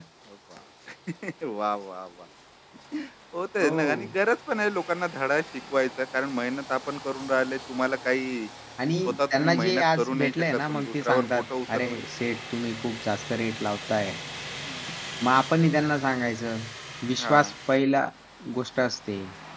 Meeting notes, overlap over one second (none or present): present